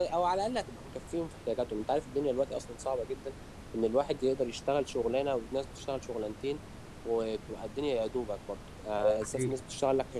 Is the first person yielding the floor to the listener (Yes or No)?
No